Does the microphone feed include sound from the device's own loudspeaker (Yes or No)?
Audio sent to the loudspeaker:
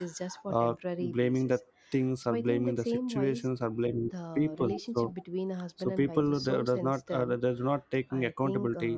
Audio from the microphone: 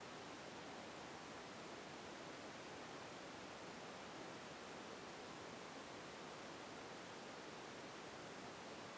No